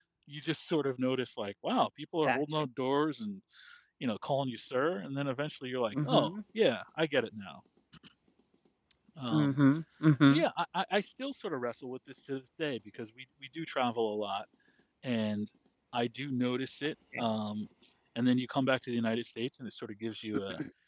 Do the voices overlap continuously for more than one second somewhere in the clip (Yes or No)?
No